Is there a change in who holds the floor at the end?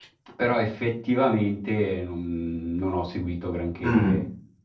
Yes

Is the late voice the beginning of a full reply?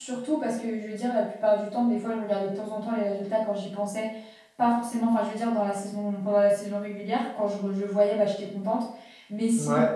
No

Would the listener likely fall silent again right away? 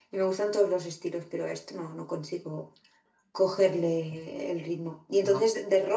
Yes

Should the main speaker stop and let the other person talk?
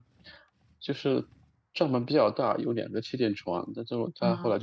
No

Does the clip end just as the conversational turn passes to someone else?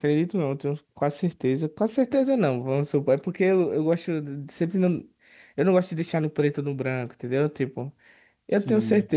No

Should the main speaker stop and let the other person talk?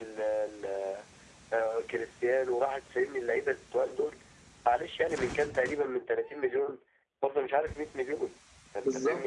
No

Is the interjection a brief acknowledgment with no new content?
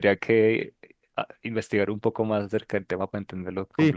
No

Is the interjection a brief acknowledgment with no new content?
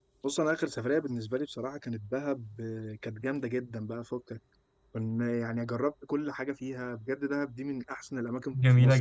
No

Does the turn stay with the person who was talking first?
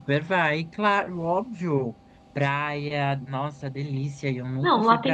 No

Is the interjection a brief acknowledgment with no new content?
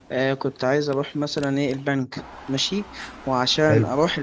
Yes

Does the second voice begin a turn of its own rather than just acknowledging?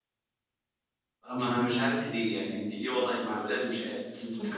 Yes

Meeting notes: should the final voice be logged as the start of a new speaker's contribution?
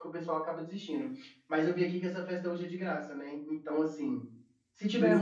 No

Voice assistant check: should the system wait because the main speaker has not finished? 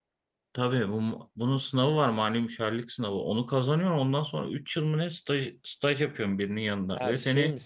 No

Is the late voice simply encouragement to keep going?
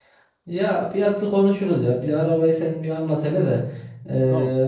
Yes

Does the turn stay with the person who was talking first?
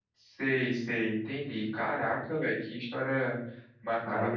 No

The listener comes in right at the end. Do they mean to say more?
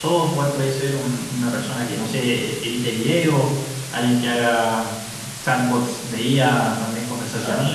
No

